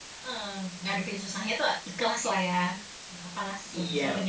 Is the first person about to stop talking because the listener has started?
Yes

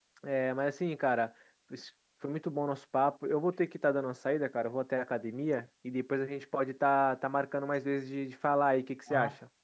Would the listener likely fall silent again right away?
No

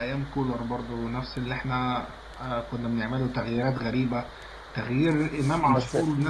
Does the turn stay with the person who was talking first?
Yes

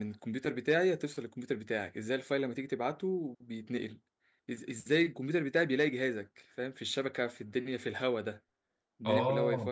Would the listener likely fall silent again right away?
Yes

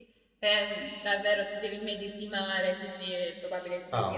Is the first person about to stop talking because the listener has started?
Yes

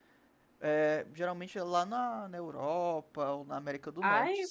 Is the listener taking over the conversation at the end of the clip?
Yes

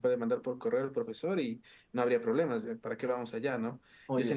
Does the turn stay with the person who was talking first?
Yes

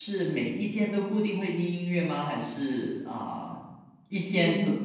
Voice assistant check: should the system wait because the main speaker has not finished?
Yes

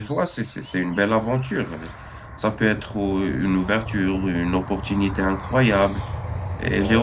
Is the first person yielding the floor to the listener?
No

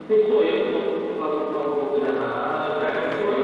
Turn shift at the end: Yes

